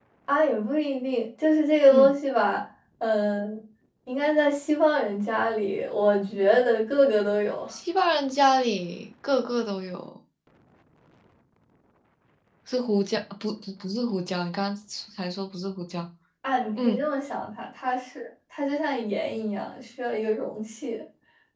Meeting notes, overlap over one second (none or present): none